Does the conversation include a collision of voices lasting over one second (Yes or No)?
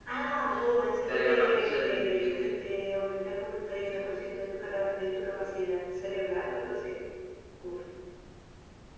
Yes